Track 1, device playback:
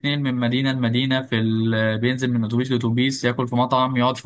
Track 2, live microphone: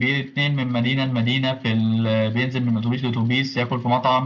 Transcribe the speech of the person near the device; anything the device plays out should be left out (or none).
none